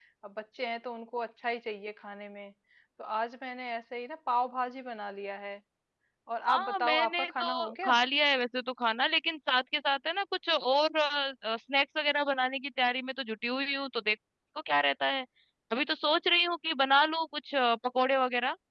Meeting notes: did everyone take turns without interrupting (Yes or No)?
No